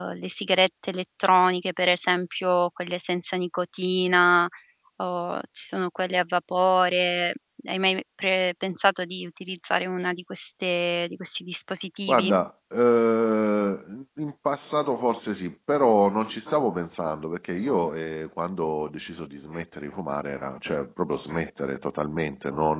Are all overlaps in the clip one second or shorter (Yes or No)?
Yes